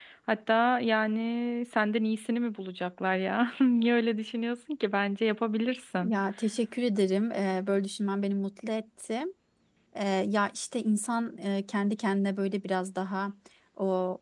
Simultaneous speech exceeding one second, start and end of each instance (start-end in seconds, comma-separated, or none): none